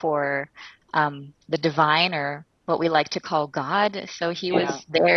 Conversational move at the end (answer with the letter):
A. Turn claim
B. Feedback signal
B